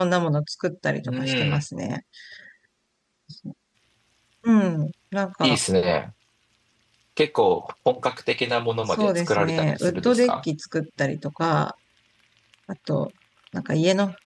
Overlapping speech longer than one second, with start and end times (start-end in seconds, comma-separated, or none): 8.9-10.4